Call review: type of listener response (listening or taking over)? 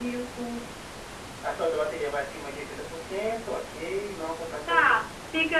taking over